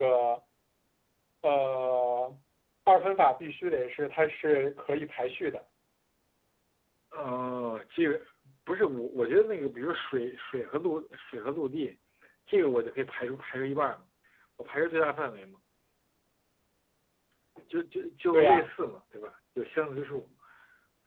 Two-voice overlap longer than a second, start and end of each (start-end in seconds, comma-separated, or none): none